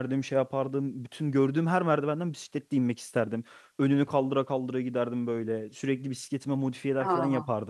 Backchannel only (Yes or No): Yes